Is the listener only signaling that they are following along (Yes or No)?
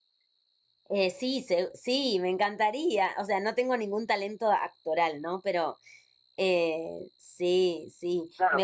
No